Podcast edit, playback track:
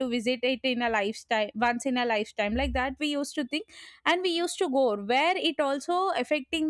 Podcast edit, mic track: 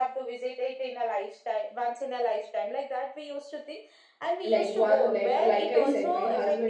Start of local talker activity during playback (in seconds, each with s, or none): 4.5 s